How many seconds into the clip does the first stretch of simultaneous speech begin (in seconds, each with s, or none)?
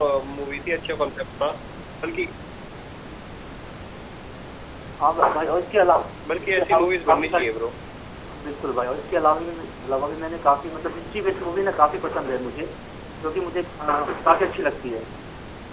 6.2 s